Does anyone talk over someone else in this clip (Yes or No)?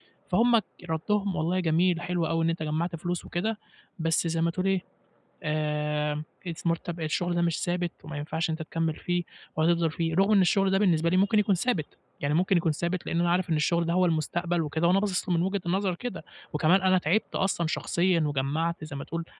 No